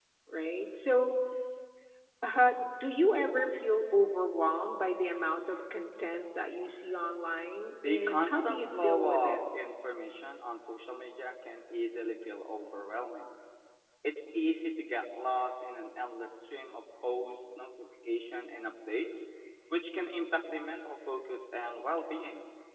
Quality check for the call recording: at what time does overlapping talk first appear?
8 s

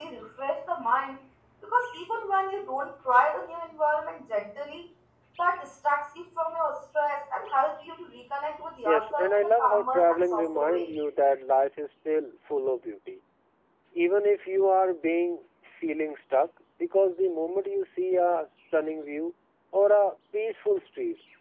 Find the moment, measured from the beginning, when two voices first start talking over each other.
9 s

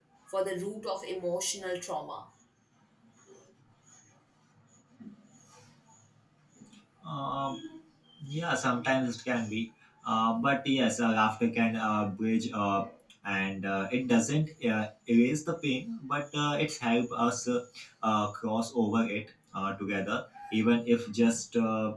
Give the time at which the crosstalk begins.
none

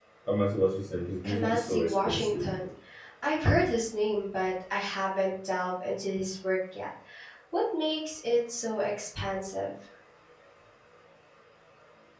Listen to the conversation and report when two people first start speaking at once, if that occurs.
1 s

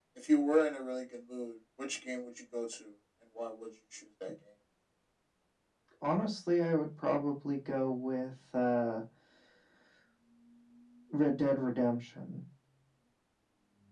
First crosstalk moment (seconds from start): none

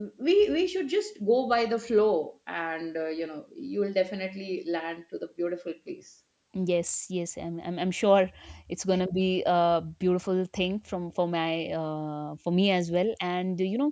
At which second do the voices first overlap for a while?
none

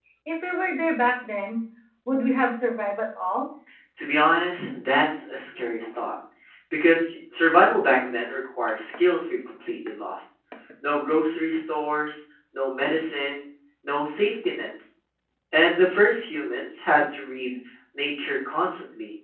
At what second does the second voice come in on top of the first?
none

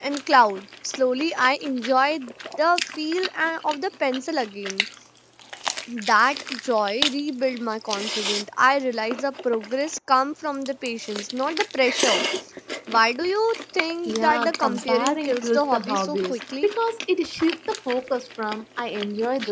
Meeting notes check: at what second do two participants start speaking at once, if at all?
14 s

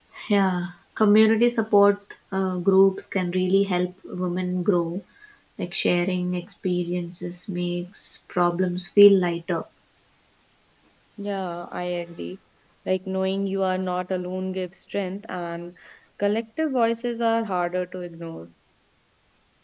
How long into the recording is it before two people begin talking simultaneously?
none

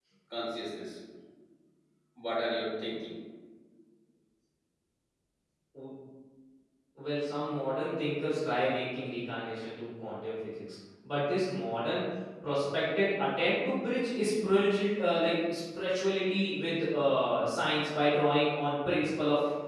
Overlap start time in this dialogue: none

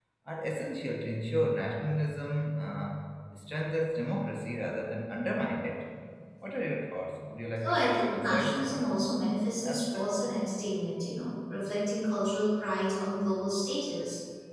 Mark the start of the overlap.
8 s

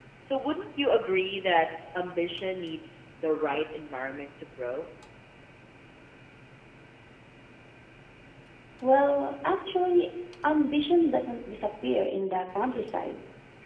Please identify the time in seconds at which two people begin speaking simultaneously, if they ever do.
none

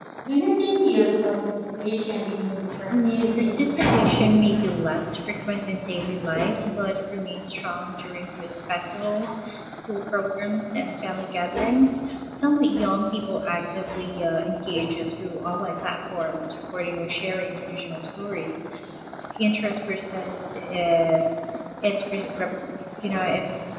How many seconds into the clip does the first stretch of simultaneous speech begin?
3 s

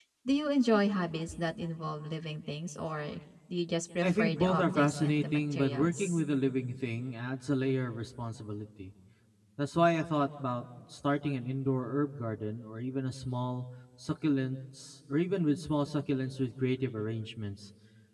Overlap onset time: 4 s

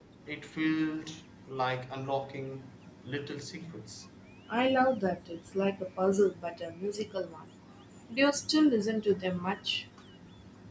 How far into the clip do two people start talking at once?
none

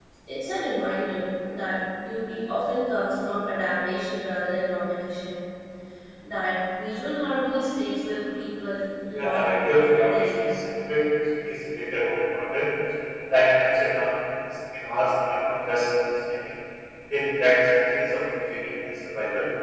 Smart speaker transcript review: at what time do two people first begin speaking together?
9 s

